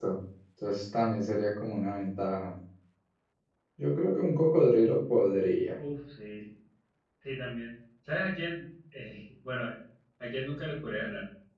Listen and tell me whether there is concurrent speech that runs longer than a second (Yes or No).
No